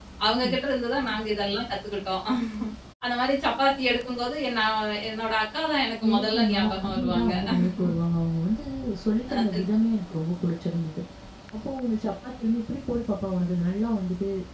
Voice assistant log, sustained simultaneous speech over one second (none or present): present